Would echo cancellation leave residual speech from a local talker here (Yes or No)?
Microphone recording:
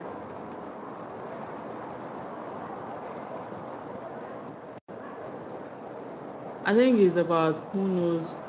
Yes